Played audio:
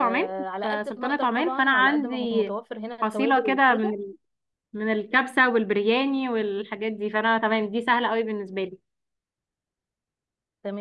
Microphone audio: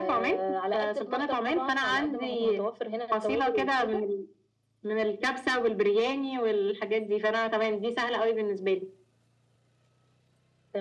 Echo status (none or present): present